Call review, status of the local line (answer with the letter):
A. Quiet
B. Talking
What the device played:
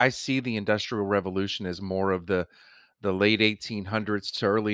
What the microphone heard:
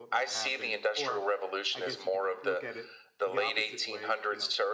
B